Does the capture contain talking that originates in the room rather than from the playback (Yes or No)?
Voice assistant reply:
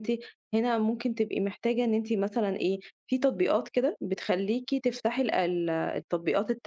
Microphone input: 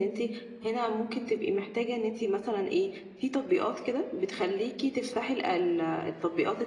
No